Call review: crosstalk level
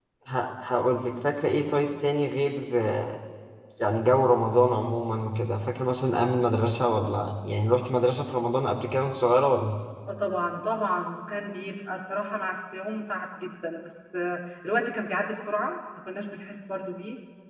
none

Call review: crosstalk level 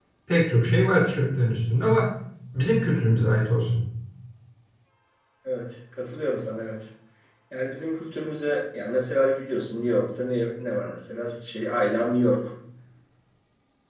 none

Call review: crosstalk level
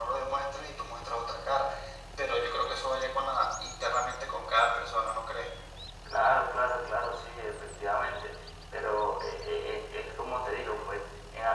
none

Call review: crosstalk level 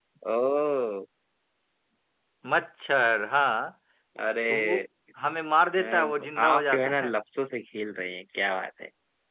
present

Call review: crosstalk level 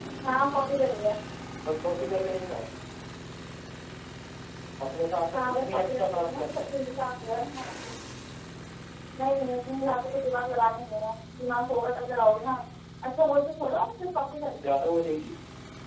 present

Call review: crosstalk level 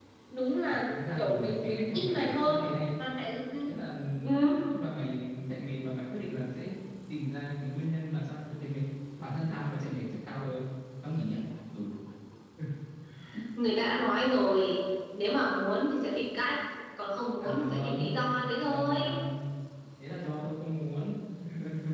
present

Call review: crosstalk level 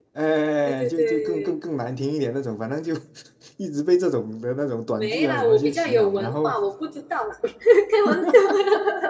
present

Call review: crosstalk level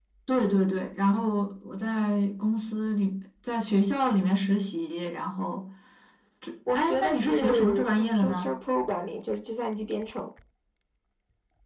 present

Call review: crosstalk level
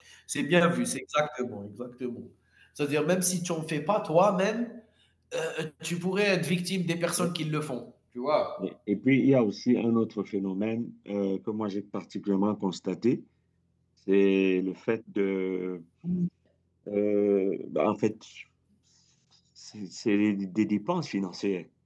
none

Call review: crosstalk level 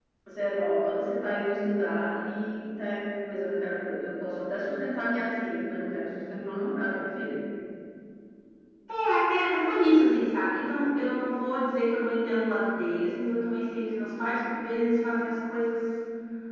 none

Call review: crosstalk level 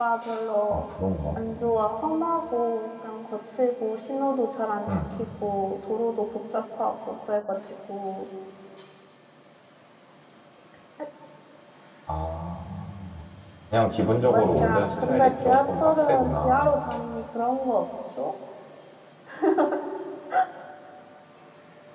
present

